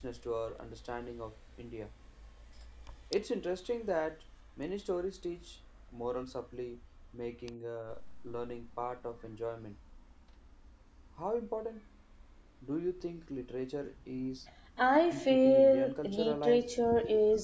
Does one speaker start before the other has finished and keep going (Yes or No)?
Yes